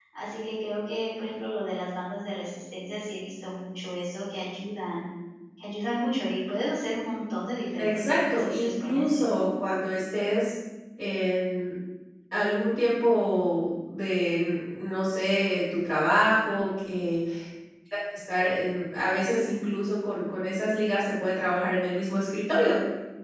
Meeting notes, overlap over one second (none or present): present